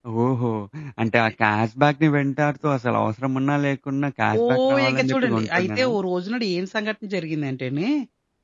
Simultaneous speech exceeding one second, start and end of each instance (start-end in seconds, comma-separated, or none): 4.4-5.9